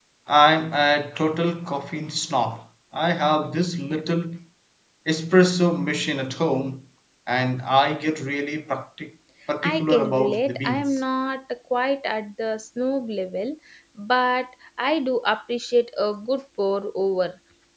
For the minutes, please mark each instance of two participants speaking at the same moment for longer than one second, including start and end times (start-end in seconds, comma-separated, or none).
9.6-11.0